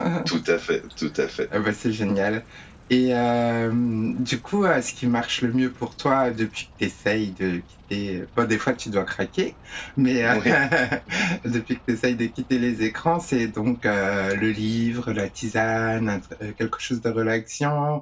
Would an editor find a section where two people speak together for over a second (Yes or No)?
No